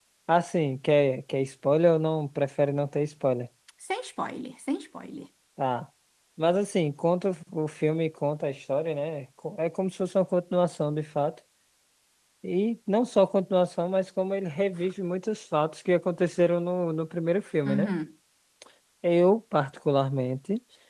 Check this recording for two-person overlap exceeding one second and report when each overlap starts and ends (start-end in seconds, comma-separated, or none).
none